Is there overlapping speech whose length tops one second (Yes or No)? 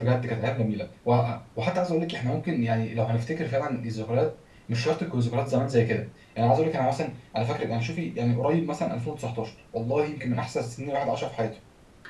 No